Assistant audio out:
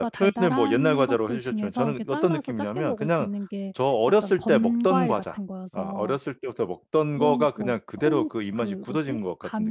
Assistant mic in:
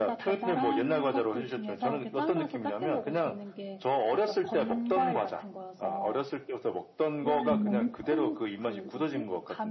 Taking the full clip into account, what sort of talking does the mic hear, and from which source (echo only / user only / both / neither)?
both